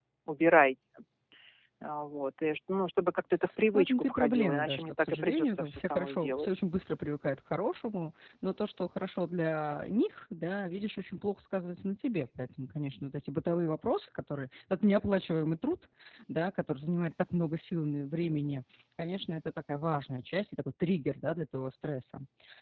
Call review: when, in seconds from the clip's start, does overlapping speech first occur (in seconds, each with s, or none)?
3.7 s